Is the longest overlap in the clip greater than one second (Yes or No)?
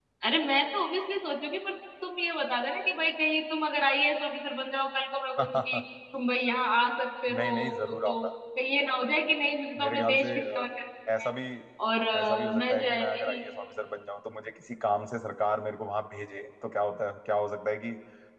Yes